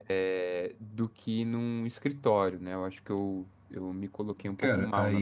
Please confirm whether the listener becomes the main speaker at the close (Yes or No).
Yes